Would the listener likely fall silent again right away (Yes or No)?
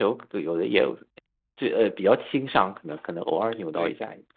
No